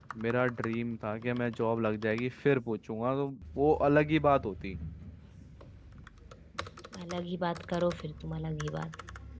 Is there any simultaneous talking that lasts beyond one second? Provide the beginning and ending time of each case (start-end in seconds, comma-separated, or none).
none